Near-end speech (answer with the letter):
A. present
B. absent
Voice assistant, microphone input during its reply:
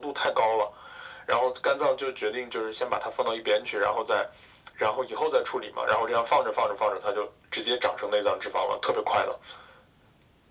B